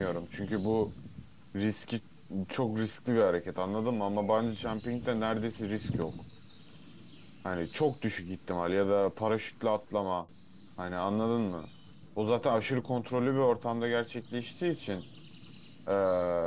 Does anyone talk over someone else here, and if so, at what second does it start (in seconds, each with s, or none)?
none